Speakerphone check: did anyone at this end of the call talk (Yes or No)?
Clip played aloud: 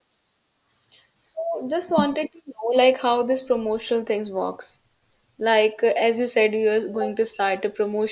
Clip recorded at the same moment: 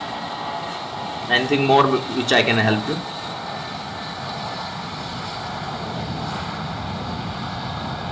Yes